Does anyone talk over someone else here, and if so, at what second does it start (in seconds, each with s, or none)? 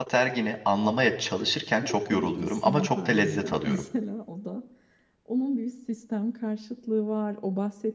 1.8 s